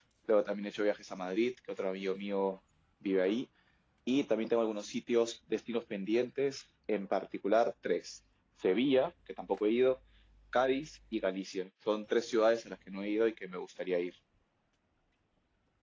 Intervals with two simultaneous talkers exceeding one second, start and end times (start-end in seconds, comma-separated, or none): none